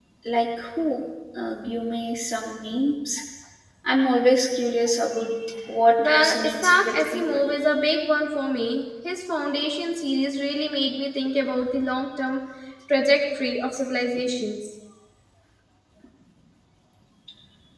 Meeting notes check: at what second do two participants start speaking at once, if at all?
6.0 s

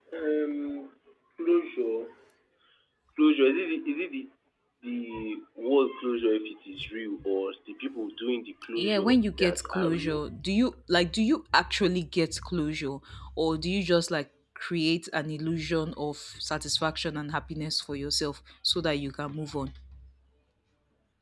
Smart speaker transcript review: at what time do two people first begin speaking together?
8.8 s

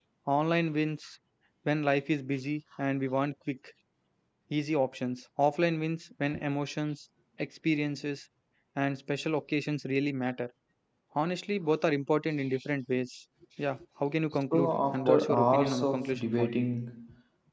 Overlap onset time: 14.5 s

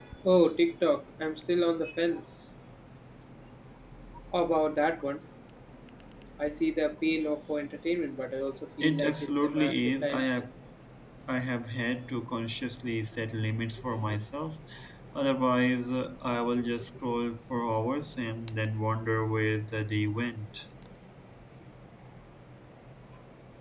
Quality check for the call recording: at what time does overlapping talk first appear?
8.8 s

